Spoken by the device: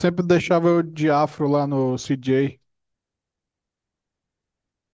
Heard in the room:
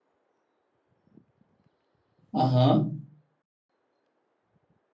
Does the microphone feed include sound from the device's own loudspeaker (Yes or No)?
No